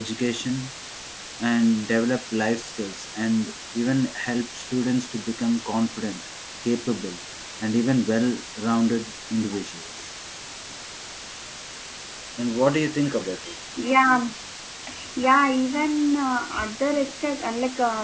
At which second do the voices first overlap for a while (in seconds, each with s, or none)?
none